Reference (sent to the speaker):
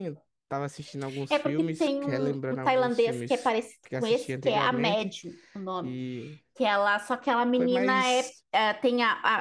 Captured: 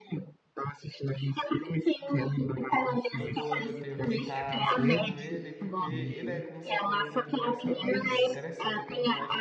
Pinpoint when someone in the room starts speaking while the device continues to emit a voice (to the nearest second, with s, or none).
3 s